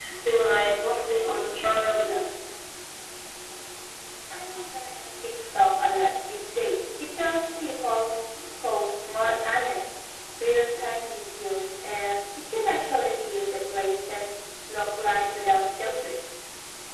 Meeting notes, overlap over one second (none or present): none